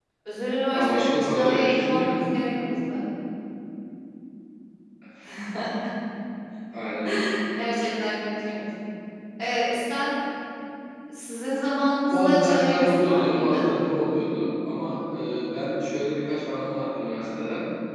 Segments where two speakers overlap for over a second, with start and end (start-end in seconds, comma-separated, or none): 0.7-2.1, 12.1-13.6